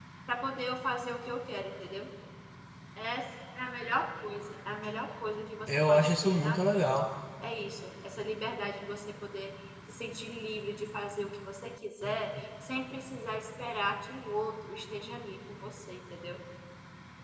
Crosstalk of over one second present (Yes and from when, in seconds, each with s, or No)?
Yes, from 5.7 s